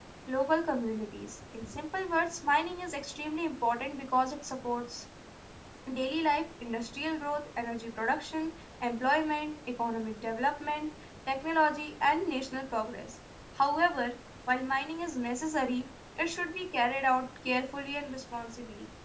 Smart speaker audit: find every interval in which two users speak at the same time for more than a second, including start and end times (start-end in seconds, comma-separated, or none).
none